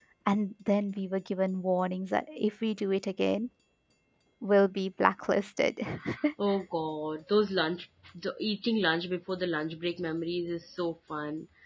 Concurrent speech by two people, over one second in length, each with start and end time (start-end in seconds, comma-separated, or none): none